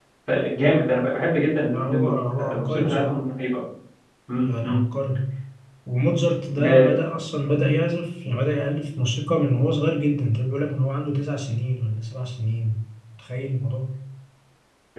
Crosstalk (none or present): present